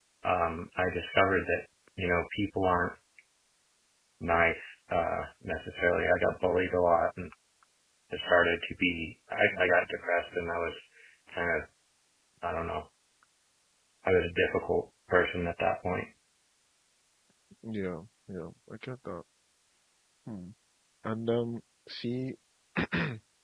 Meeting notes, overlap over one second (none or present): none